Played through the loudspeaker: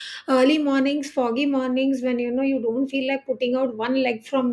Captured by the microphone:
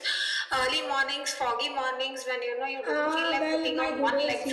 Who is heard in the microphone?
both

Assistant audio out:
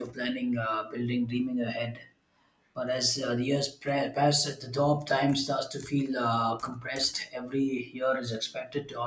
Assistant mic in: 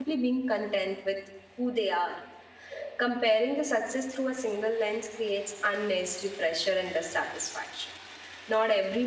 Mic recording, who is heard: user only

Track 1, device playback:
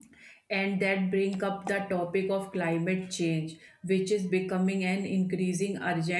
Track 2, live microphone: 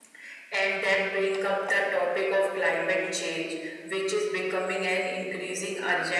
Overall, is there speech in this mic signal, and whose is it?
echo only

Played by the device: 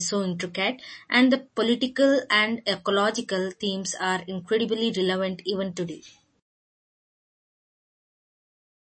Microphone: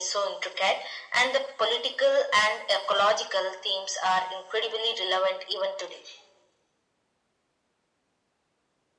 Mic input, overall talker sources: echo only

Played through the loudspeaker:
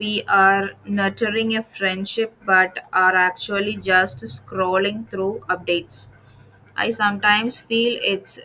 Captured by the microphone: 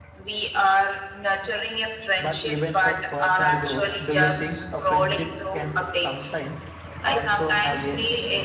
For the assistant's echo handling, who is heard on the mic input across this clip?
both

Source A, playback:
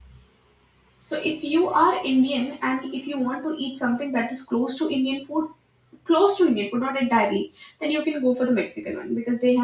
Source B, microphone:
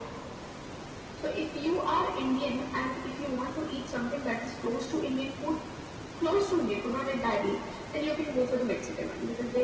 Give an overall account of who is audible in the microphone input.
echo only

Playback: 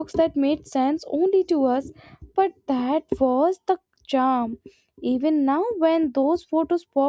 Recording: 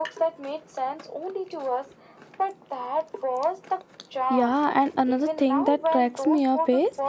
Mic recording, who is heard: both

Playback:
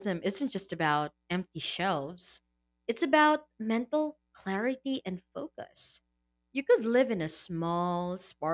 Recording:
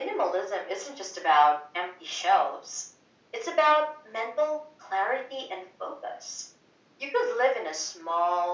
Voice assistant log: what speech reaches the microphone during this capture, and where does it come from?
echo only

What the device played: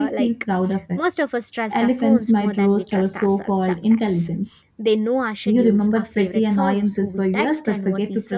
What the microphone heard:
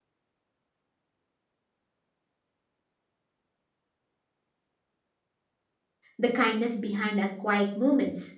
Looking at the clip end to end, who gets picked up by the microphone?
user only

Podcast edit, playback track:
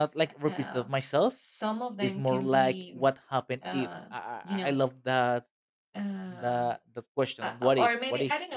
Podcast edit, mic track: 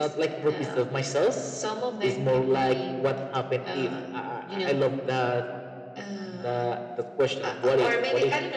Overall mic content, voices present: echo only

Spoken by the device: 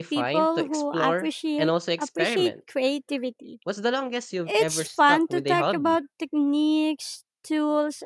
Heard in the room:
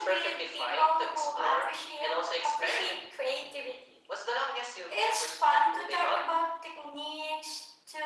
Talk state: echo only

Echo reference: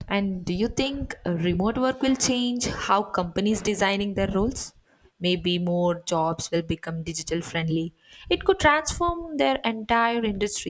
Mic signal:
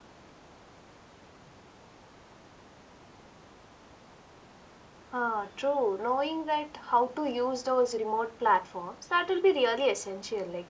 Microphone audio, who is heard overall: user only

